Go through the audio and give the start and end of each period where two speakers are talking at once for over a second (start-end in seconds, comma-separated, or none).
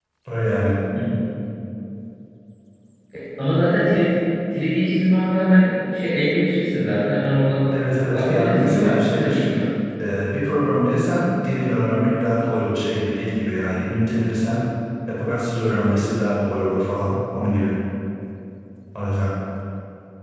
8.1-9.4